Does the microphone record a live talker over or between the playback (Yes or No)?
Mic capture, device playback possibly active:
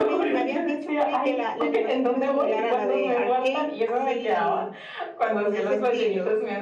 Yes